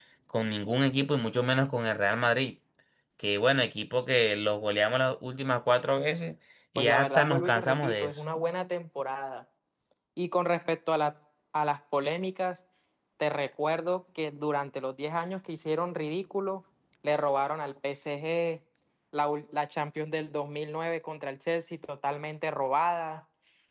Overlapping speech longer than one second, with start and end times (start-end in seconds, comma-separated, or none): 6.8-8.2